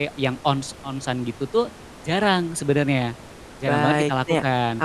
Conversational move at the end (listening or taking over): taking over